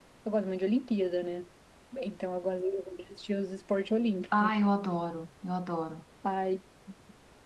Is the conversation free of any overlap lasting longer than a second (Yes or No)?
Yes